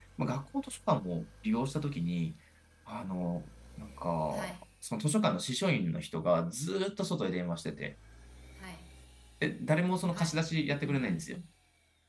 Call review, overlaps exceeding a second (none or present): none